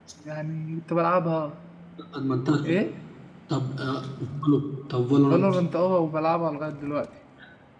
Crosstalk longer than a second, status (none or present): none